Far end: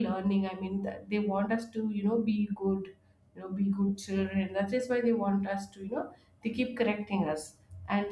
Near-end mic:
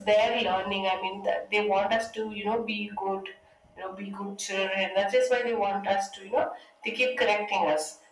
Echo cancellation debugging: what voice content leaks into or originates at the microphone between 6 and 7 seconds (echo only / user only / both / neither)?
echo only